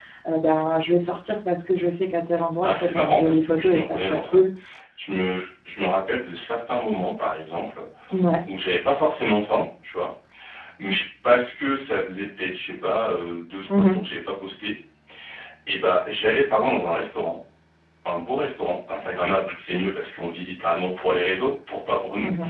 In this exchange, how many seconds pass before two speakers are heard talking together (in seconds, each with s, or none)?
2.6 s